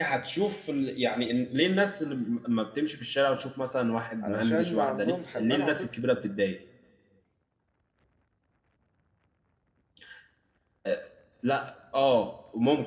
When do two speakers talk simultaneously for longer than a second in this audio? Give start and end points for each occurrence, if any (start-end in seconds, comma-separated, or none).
4.2-5.9